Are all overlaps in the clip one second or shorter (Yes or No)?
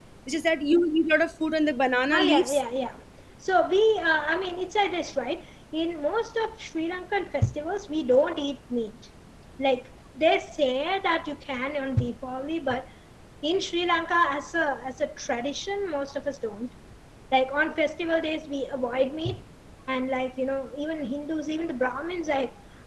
Yes